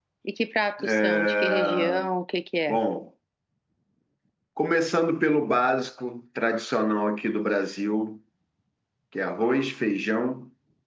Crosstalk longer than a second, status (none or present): present